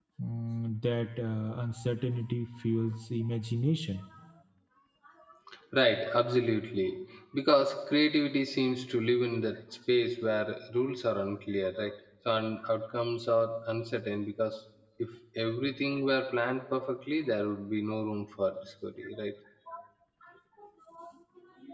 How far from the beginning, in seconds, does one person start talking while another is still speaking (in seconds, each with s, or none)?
none